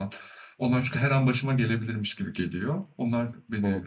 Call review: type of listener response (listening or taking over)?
taking over